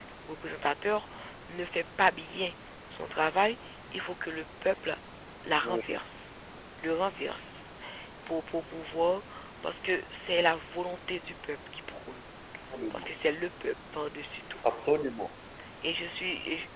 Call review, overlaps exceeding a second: none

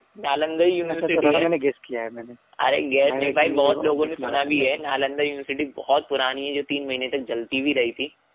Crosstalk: present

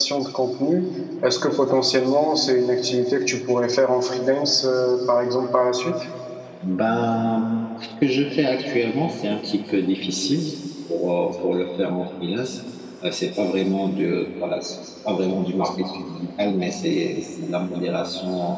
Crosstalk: none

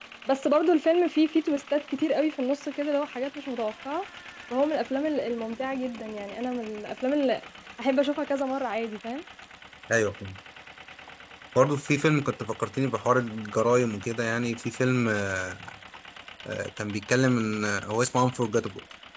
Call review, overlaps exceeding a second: none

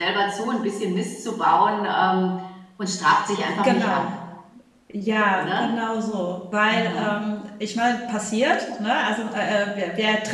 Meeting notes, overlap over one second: none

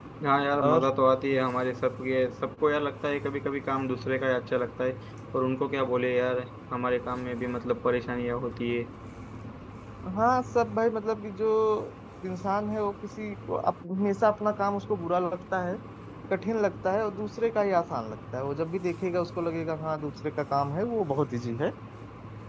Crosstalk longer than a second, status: none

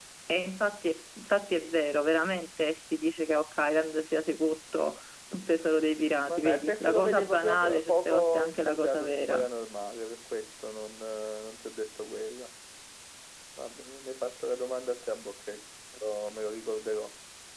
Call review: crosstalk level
present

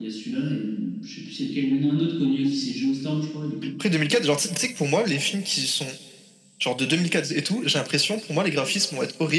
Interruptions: none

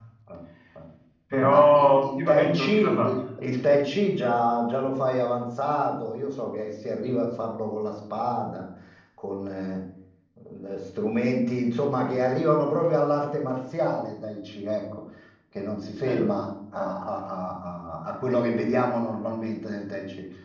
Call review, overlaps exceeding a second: present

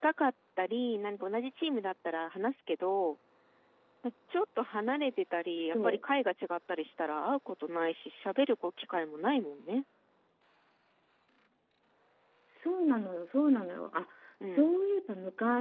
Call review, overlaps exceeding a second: none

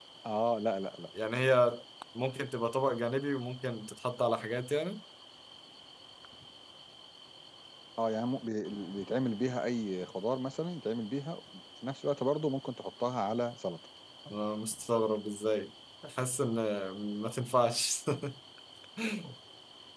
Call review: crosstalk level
none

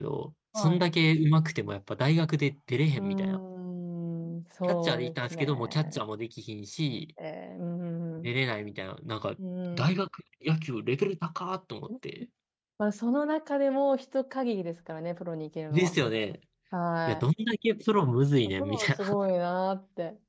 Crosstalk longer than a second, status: present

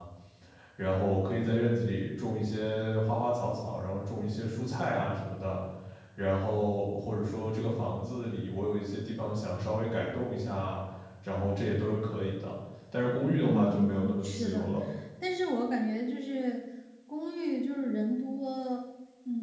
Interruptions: present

